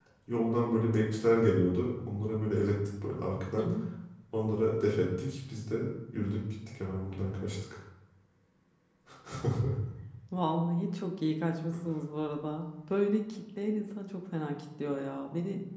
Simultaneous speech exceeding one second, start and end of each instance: none

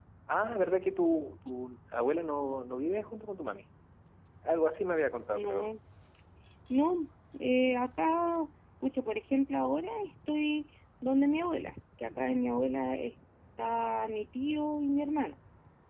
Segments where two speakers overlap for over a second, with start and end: none

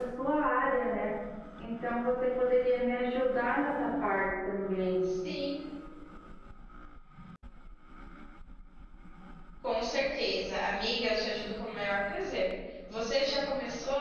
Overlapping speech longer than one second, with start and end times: none

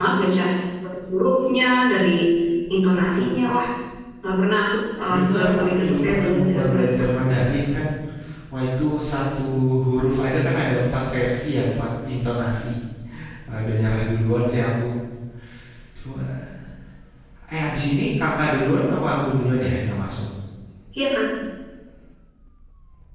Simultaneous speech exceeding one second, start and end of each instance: 5.1-7.0

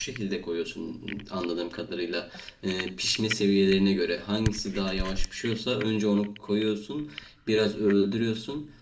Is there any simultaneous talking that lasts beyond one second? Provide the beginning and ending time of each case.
none

